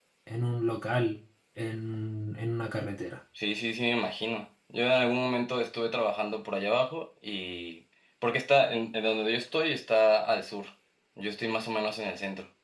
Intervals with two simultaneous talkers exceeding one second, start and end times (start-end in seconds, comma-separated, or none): none